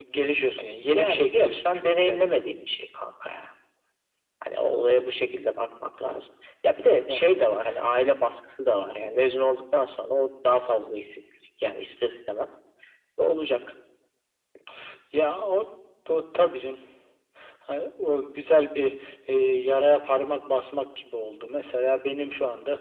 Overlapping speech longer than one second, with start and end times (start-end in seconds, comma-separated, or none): 0.9-2.3